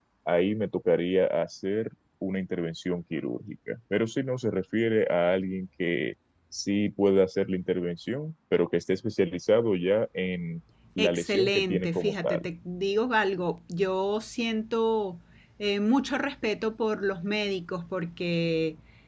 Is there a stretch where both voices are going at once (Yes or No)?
Yes